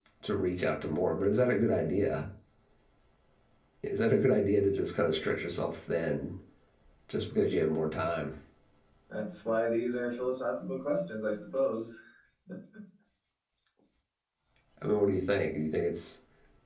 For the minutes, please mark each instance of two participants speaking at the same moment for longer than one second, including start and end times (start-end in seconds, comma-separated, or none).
none